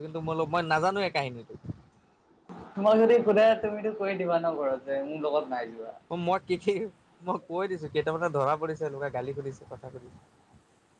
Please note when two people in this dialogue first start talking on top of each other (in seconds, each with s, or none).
none